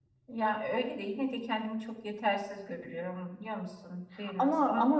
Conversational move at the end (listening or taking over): taking over